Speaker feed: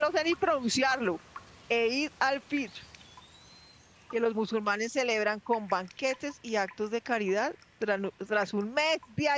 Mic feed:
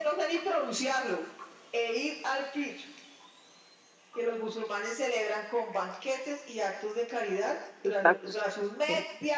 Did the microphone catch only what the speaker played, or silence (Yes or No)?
No